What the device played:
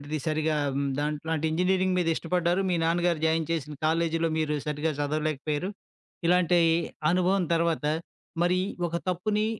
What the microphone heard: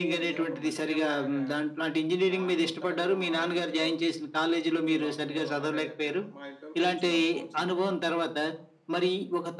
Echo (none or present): present